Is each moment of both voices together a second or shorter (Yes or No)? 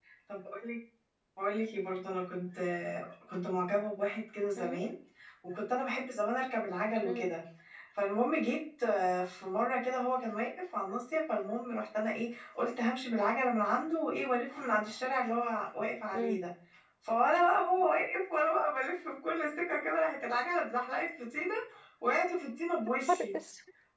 Yes